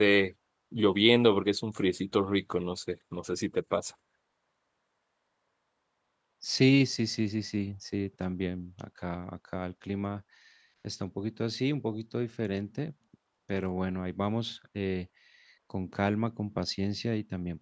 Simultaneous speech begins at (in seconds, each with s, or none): none